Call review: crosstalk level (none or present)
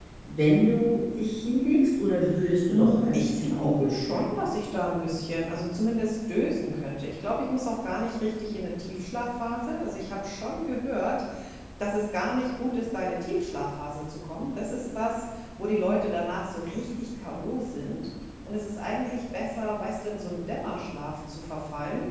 present